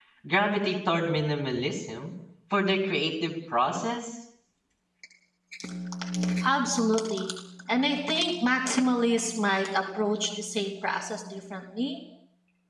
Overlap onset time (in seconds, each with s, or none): none